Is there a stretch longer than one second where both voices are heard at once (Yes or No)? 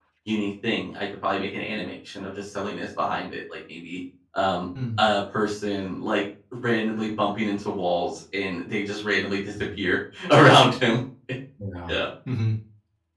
No